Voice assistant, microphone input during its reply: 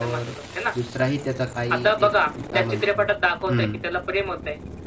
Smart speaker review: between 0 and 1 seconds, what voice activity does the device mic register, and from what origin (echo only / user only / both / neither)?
both